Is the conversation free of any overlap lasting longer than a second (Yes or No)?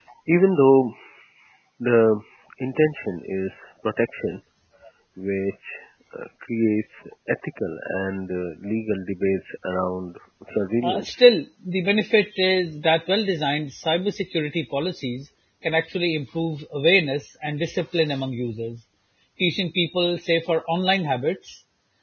Yes